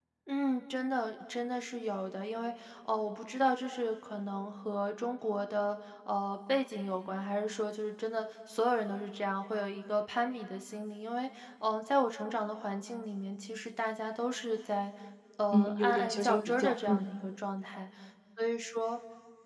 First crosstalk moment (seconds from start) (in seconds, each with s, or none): 15.5 s